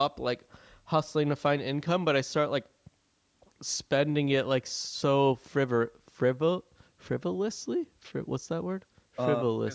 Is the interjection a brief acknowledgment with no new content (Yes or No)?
No